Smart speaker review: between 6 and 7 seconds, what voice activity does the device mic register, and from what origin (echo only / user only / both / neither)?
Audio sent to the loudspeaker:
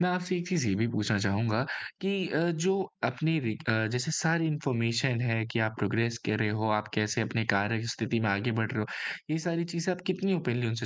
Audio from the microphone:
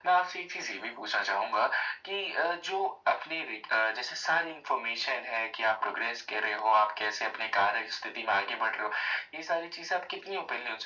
echo only